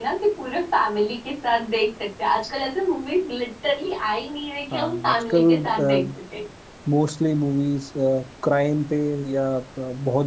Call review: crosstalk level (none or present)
present